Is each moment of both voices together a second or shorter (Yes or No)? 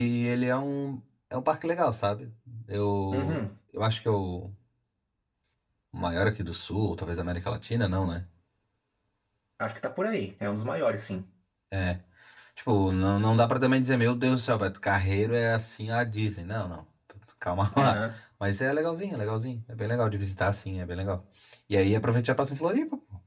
Yes